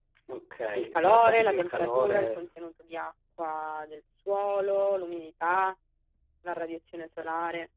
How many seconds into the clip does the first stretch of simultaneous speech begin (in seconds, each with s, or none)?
0.7 s